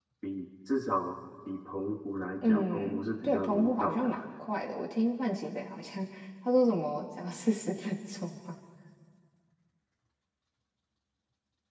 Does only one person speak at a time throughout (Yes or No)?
No